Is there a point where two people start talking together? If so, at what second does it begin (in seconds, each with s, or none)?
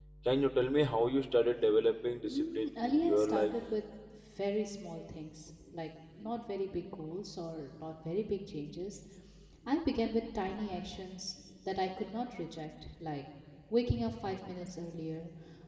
2.3 s